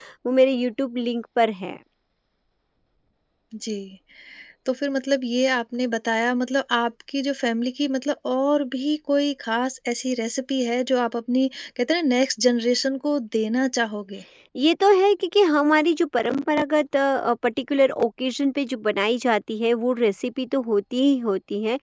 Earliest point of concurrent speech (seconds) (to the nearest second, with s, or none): none